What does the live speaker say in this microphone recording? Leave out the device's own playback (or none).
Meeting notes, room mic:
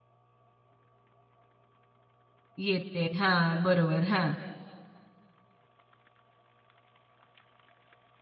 येते. हां, बरोबर. हां,